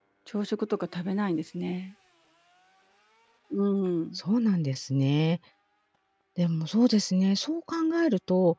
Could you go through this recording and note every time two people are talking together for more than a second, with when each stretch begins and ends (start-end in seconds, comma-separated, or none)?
none